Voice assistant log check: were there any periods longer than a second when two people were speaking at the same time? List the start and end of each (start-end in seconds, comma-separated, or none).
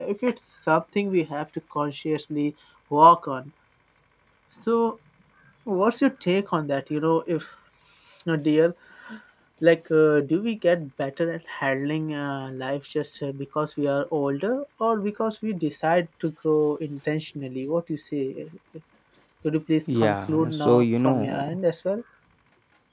20.0-21.4